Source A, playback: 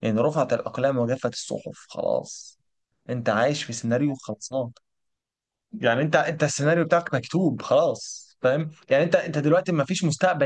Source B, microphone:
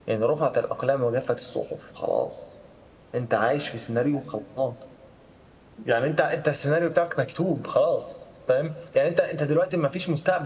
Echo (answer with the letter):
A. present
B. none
A